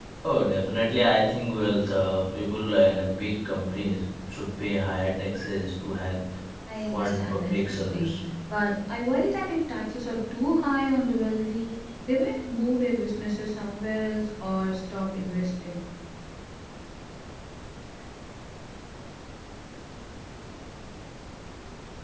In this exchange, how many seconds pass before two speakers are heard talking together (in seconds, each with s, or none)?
6.9 s